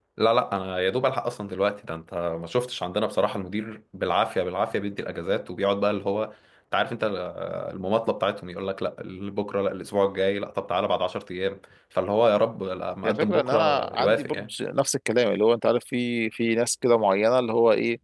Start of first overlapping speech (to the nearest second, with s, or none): 13 s